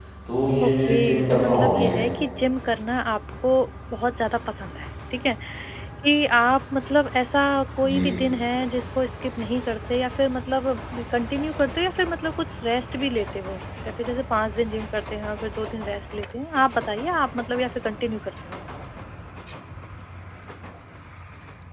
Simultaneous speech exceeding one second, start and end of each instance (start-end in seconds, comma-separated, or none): 0.6-2.0